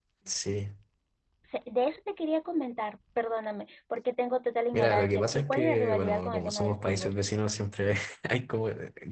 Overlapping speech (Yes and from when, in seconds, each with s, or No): Yes, from 4.7 s